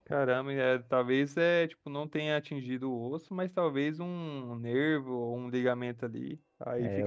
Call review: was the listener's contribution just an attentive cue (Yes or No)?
No